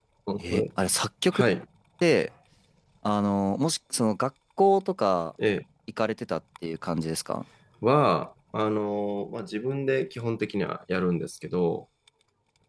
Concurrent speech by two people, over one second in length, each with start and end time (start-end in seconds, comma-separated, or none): none